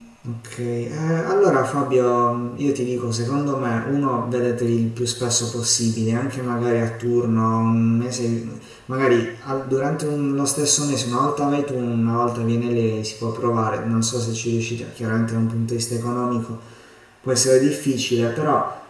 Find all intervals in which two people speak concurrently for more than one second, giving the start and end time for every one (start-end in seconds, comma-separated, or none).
none